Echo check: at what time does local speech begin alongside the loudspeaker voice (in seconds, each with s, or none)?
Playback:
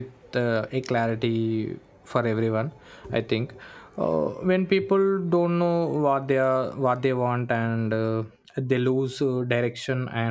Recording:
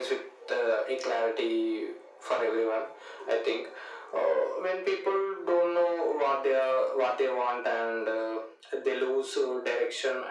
none